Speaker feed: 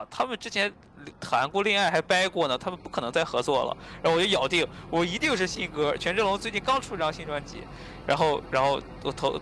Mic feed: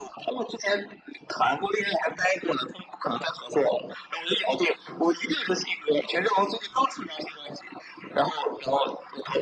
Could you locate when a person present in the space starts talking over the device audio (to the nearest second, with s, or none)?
none